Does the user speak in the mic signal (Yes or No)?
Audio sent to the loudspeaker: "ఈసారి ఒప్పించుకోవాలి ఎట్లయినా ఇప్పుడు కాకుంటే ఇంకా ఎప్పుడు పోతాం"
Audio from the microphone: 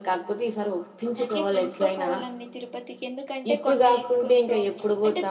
Yes